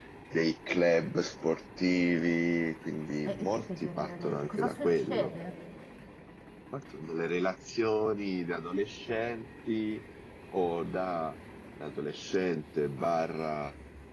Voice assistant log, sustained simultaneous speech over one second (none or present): present